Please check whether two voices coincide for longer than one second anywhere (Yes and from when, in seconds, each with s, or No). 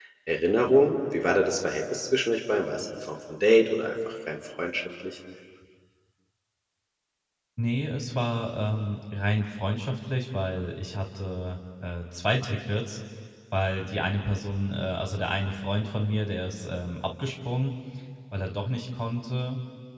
No